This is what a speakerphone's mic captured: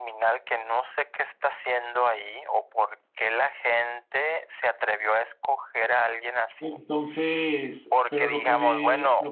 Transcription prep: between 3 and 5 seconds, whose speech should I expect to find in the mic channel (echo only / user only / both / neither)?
echo only